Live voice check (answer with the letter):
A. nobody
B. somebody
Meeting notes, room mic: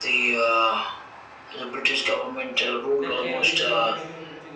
B